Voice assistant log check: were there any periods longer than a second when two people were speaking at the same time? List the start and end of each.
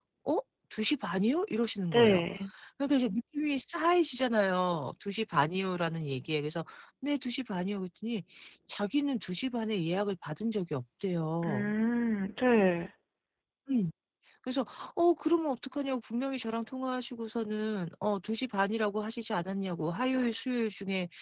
none

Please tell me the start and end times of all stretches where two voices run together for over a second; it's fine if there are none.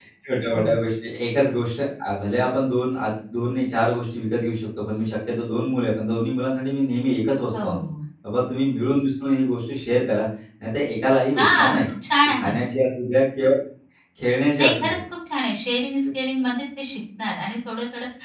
none

